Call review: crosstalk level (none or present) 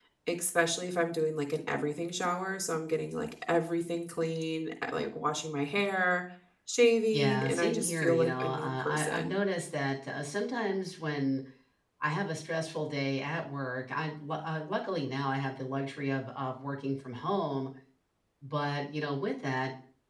present